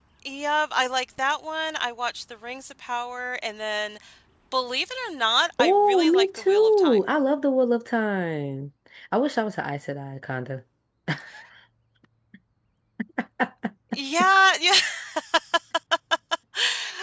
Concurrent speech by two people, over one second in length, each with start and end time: 5.6-7.0

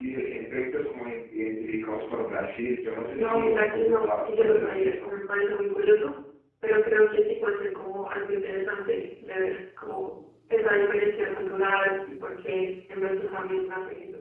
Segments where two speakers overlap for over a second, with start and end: 3.1-5.2

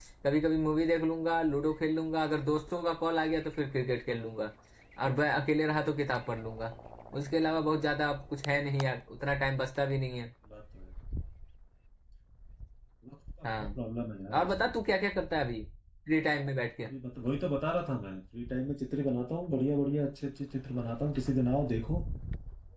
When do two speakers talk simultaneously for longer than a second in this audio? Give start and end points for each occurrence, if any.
none

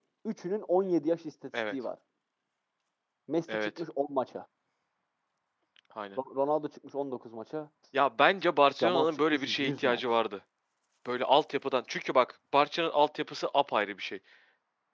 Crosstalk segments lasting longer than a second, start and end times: 8.8-10.0

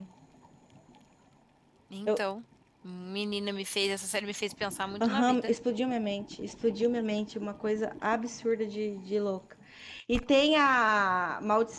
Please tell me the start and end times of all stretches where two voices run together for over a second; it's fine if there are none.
none

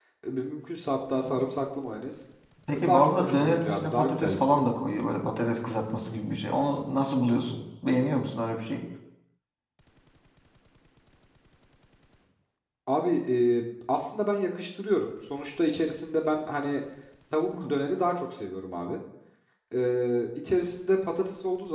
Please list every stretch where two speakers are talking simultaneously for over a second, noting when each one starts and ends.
2.7-4.6

